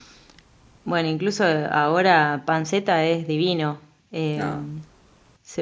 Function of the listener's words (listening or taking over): listening